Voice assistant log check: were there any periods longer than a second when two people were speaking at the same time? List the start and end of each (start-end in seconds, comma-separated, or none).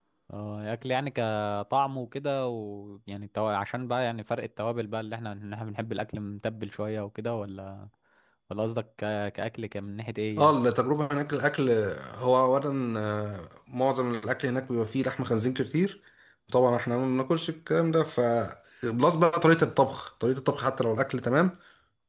none